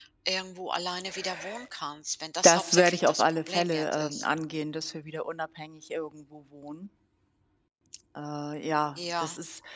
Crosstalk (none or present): present